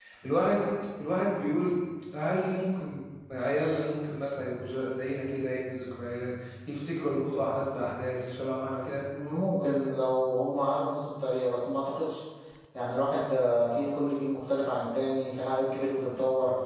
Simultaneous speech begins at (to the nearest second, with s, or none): none